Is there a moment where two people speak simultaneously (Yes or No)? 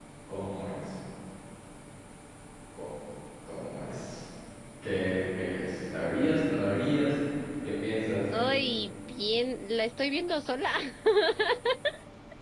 No